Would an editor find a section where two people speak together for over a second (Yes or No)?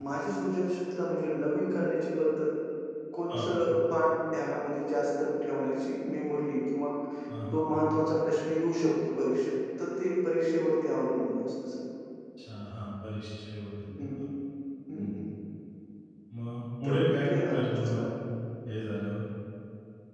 Yes